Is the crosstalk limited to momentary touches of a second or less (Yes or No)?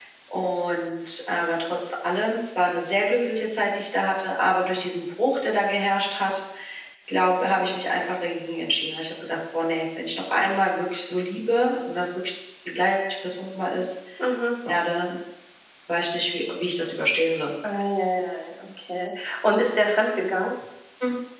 Yes